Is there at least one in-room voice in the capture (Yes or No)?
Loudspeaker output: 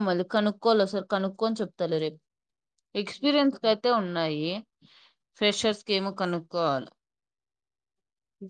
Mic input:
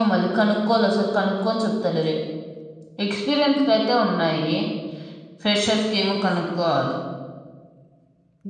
No